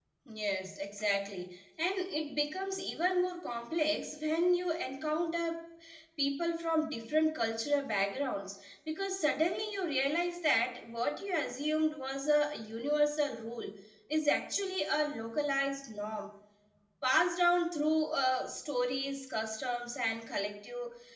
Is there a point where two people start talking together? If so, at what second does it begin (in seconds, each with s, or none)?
none